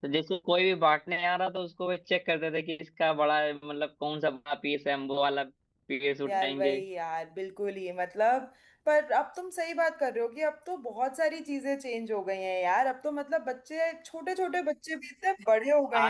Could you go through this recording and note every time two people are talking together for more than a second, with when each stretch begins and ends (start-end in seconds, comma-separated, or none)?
none